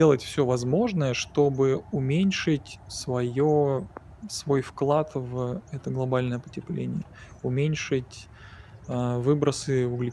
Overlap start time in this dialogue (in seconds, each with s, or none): none